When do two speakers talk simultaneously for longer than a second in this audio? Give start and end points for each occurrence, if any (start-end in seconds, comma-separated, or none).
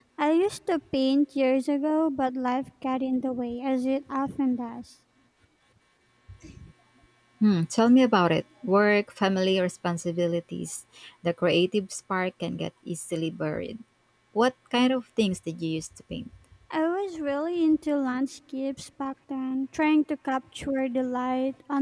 none